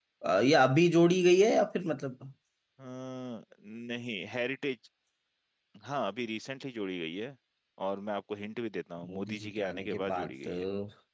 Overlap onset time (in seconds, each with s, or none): 9.0 s